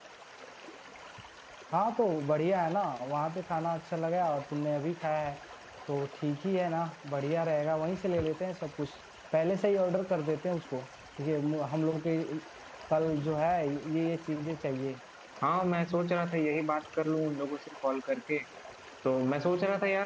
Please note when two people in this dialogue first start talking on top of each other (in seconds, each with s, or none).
none